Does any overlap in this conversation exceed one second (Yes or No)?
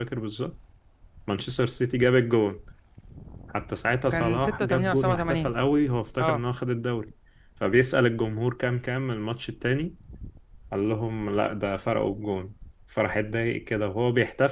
Yes